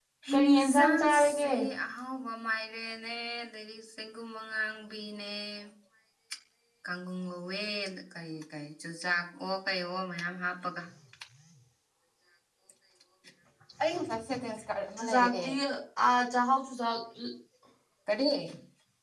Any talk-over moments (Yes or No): Yes